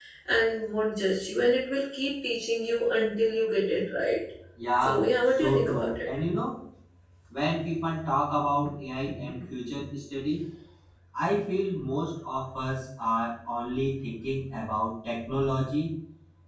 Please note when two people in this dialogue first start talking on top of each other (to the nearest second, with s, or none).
5 s